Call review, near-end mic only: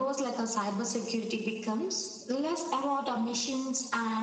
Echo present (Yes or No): Yes